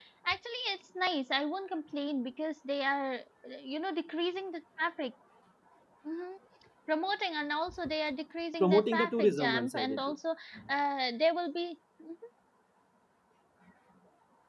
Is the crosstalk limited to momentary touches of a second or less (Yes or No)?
No